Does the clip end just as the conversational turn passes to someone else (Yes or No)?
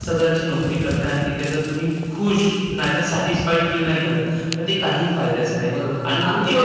Yes